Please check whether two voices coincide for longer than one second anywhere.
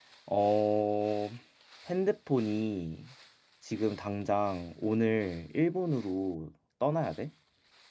No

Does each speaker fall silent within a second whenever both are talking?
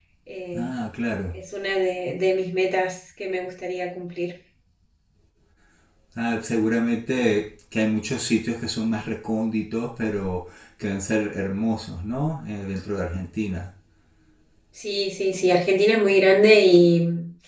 Yes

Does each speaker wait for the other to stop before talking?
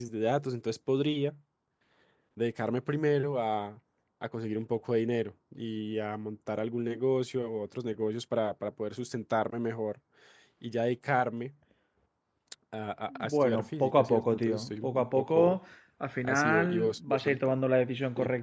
No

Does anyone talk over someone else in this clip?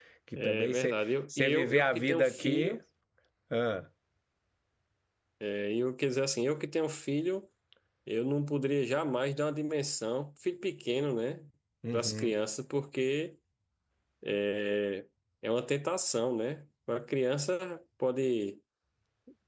Yes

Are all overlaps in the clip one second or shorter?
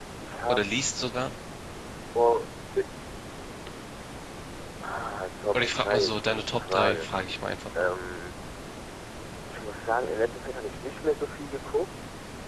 No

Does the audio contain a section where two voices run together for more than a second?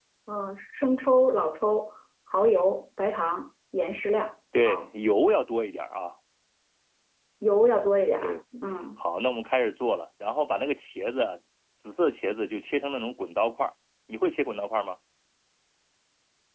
No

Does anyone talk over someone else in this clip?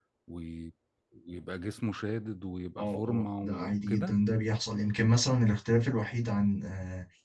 Yes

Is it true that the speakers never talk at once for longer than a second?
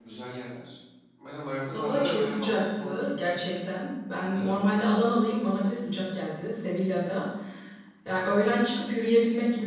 No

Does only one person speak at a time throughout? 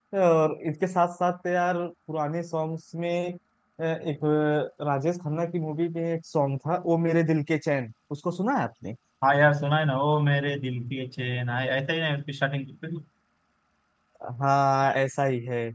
Yes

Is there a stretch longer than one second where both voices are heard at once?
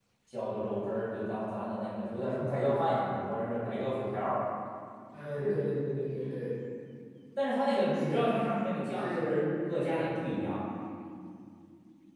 No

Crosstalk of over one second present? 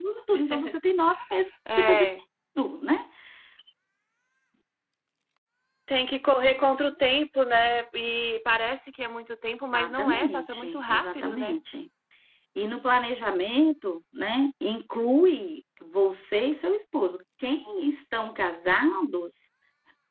Yes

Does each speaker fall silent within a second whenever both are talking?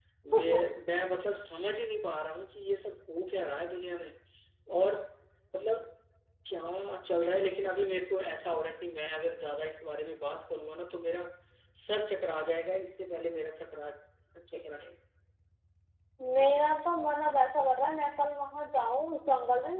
Yes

